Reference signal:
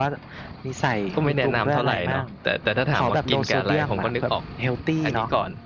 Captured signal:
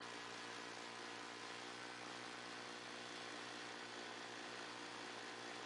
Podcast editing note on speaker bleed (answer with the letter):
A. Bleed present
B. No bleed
B